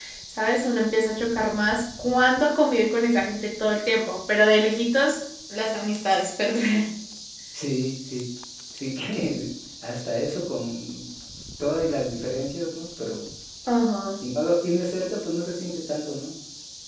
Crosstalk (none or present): none